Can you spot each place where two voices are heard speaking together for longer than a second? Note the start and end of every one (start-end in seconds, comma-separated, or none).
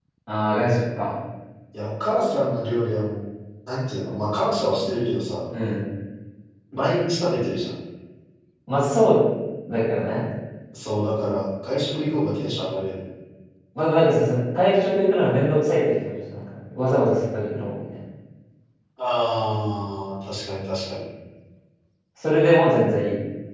none